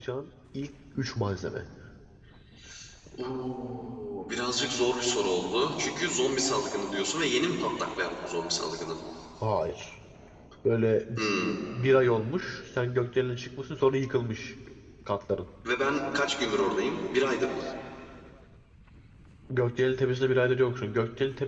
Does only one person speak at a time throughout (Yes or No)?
Yes